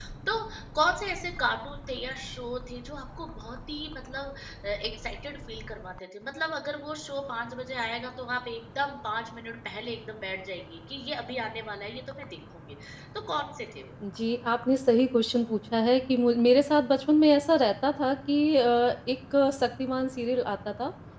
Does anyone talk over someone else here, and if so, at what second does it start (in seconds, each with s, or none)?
none